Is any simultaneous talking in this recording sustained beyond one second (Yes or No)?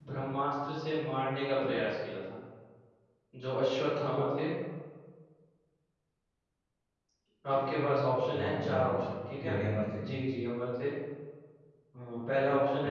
Yes